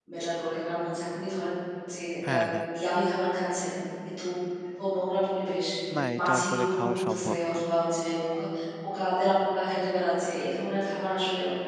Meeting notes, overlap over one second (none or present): present